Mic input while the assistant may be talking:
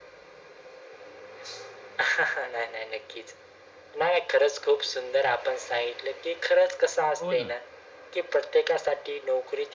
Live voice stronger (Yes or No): No